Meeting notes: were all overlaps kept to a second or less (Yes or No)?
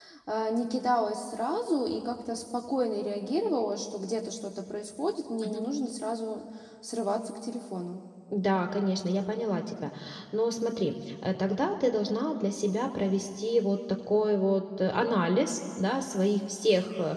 Yes